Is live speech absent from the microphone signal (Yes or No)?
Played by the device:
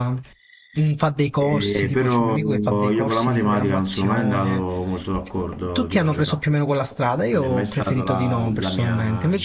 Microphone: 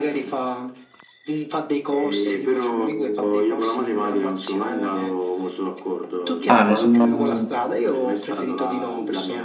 No